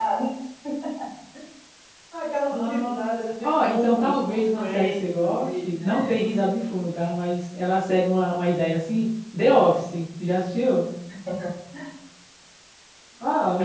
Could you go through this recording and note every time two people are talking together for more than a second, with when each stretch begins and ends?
3.4-6.1

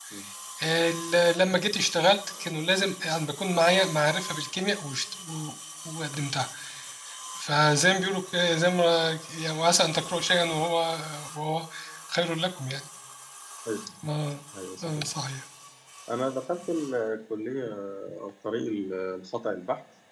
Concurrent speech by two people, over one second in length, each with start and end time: none

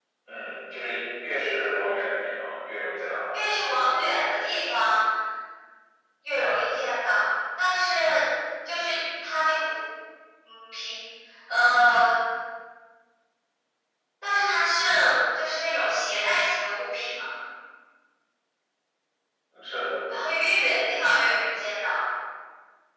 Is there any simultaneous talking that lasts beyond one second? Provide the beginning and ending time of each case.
none

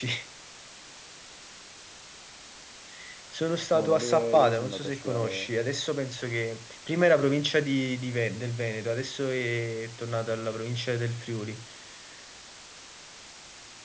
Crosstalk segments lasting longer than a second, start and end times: 3.7-5.5

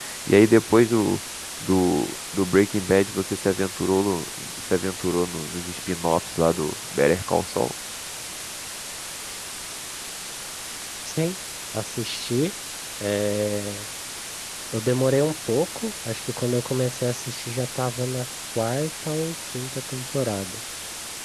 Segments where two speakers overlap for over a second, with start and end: none

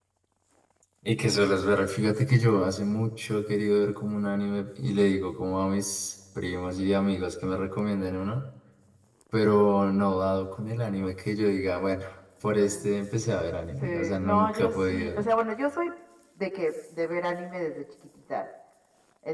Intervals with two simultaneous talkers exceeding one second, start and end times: 13.8-15.2

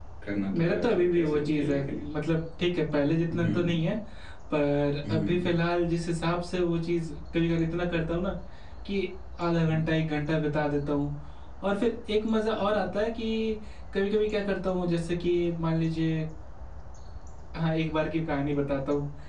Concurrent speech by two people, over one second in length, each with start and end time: 0.6-2.0

